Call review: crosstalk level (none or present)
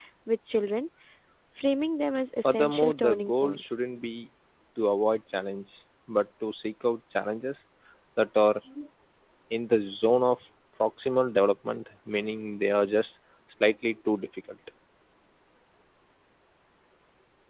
present